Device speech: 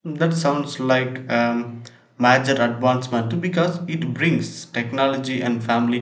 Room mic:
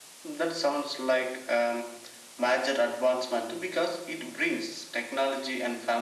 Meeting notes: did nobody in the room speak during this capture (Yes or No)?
Yes